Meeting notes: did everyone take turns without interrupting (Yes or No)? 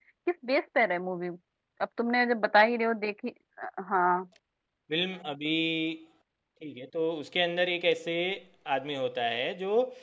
Yes